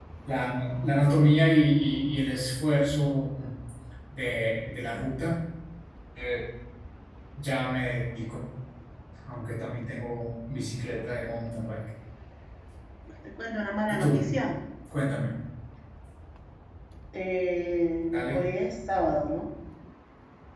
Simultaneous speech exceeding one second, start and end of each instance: none

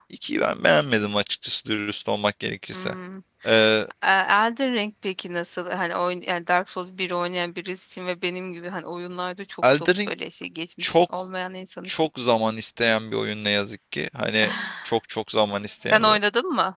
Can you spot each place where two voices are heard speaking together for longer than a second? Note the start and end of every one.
none

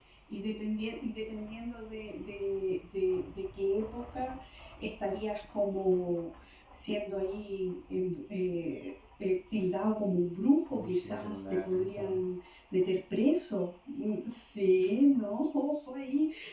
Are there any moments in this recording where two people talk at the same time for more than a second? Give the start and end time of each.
10.7-12.2

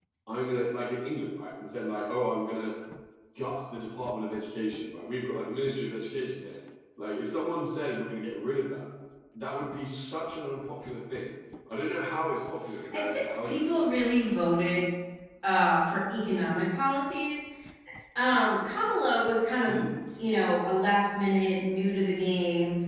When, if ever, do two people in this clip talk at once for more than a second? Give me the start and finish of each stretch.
12.9-14.2

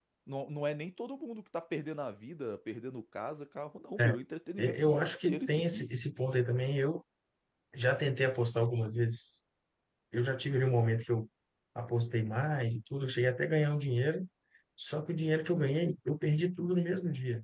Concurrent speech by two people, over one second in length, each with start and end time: 4.6-5.8

